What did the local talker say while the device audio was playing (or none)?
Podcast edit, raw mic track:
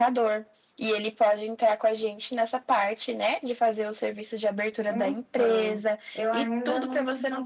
none